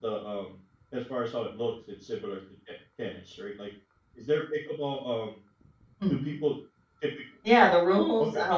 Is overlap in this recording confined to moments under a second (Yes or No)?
Yes